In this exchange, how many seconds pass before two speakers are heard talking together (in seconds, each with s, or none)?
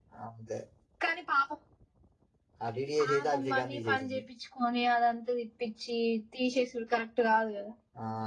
3.0 s